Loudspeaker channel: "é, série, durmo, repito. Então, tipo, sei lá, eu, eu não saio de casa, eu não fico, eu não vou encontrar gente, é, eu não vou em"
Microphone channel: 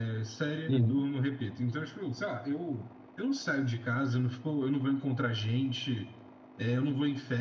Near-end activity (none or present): present